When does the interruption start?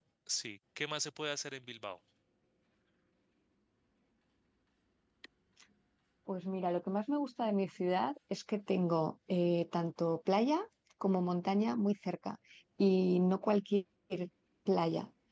none

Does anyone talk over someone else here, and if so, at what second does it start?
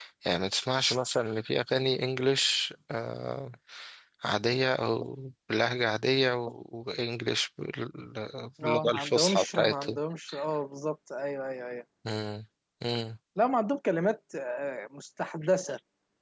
8.6 s

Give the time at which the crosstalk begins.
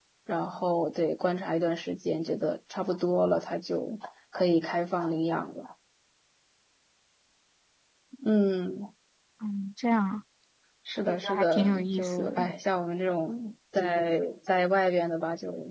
11.1 s

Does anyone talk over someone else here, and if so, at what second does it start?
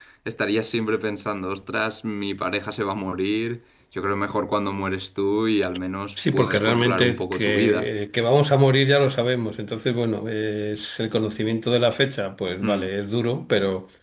6.3 s

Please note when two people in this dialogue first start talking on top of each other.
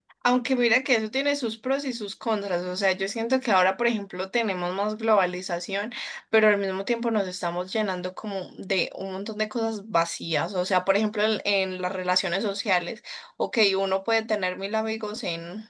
none

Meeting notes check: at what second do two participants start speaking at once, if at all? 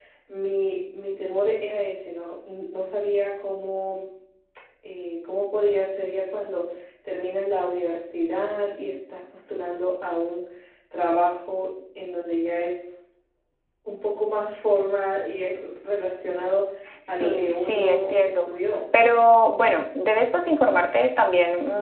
17.1 s

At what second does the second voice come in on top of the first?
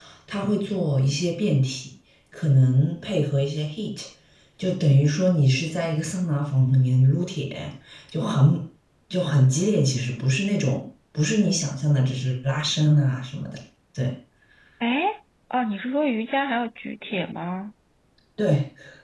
none

